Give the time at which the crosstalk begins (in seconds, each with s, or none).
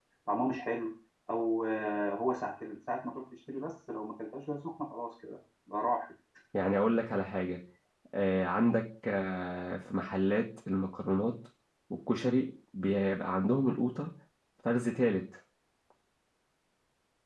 none